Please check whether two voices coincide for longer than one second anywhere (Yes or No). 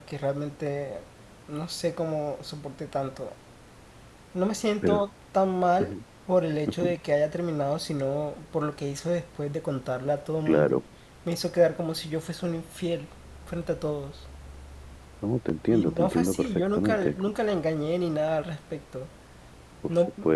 Yes